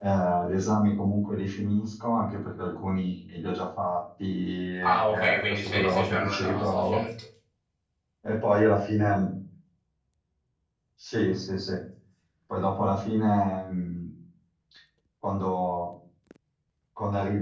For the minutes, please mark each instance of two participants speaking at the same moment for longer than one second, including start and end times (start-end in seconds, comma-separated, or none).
4.8-7.1